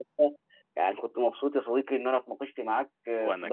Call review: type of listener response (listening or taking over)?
listening